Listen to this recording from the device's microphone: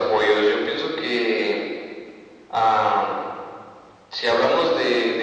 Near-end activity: none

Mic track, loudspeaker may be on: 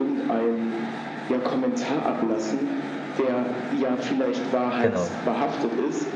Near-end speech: present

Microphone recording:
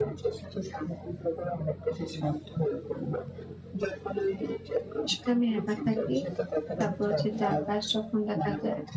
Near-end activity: present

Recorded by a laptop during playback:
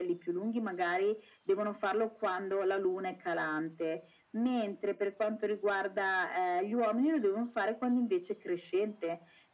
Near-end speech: none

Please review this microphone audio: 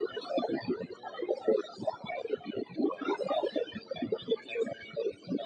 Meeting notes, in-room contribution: none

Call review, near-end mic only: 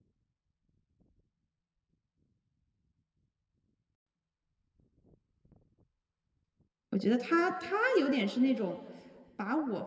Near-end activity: present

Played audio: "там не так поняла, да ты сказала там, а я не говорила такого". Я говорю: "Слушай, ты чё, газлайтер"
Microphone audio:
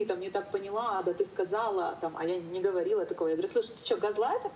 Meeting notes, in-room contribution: none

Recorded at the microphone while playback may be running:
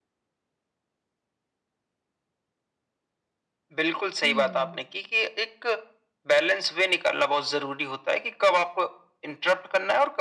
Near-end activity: present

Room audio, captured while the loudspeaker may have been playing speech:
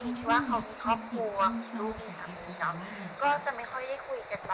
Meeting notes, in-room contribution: present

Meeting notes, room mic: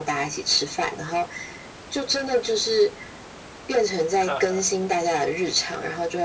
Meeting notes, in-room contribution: present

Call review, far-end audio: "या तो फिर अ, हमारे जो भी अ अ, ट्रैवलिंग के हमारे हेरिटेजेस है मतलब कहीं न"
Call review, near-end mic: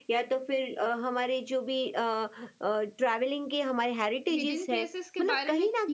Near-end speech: present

